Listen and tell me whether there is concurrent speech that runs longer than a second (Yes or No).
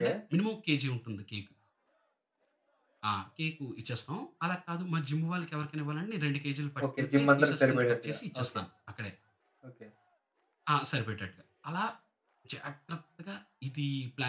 Yes